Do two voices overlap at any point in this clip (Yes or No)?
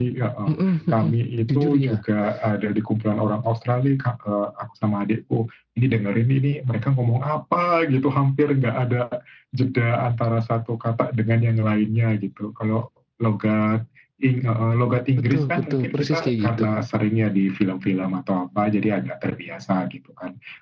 Yes